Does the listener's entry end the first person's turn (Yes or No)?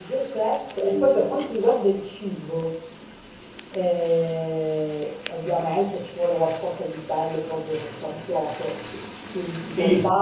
Yes